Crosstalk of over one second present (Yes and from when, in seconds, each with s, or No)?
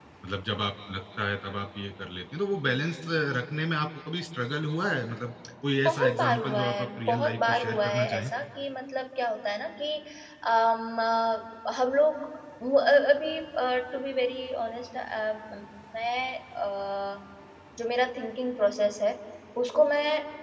Yes, from 5.7 s